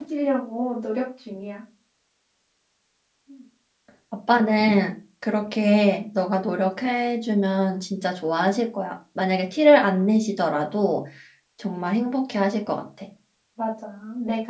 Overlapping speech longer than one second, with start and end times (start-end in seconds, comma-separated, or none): none